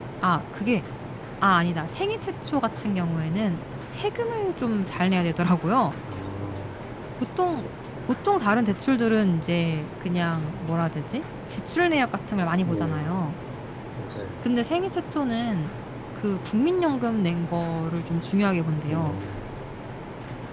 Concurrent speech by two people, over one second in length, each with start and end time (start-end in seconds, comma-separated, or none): none